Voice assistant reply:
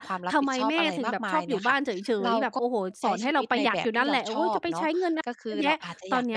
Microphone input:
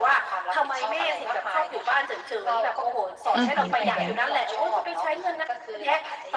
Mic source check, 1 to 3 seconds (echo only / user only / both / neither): echo only